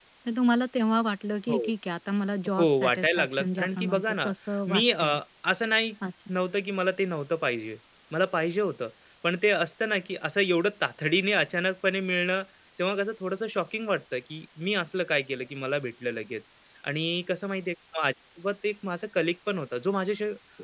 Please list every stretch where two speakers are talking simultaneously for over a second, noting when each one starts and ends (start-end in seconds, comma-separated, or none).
2.6-4.3